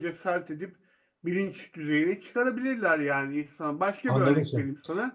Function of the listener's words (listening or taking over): taking over